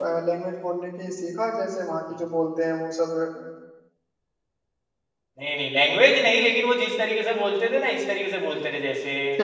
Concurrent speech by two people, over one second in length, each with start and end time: none

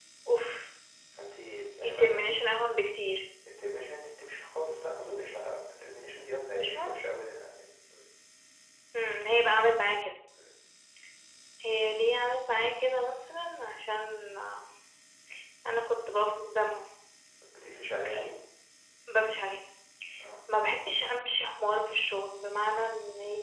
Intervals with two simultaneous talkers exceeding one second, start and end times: none

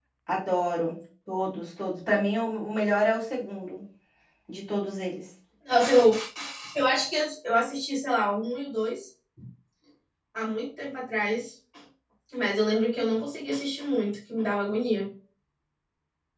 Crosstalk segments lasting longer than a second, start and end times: none

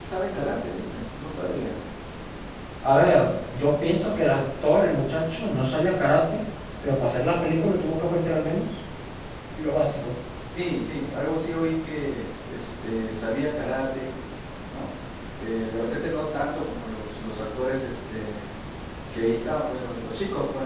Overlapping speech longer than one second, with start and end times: none

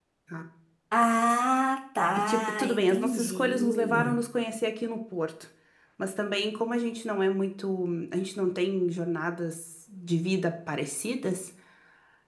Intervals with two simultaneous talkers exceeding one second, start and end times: 2.3-4.2

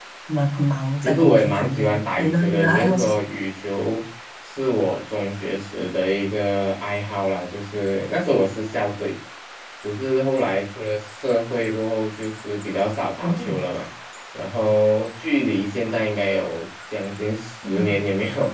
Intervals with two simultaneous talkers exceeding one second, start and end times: 1.0-3.1

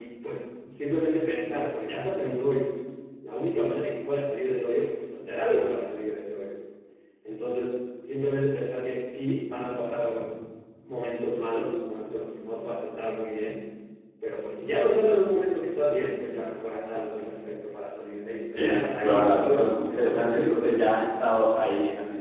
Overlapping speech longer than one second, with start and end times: 18.6-20.9

